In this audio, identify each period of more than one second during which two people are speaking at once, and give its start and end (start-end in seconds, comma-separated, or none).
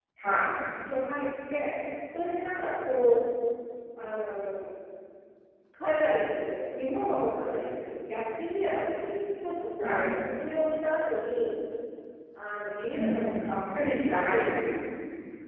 12.9-14.7